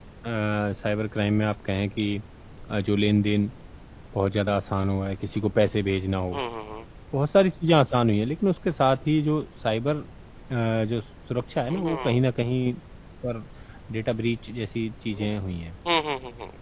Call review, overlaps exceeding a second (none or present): none